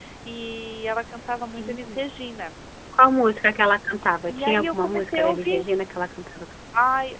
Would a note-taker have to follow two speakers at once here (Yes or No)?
Yes